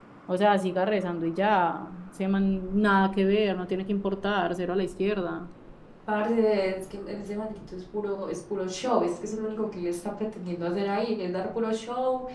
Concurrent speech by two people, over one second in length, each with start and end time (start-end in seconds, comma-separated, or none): none